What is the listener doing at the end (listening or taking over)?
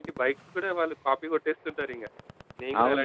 taking over